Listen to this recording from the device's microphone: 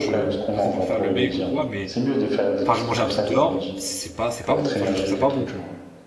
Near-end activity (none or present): present